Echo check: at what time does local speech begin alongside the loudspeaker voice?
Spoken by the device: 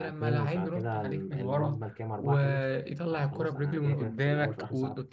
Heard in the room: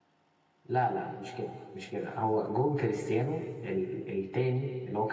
0.7 s

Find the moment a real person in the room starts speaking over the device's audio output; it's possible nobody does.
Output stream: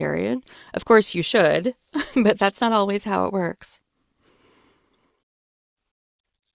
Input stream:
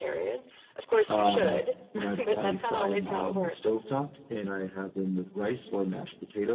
1.1 s

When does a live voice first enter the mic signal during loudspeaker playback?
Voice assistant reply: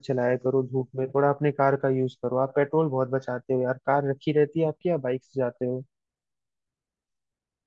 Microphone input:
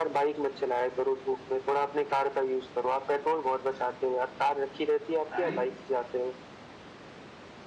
5.1 s

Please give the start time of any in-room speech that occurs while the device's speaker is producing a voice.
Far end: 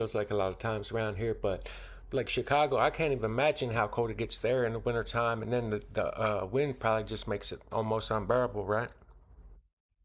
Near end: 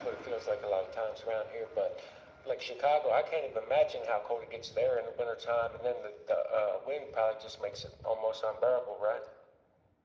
none

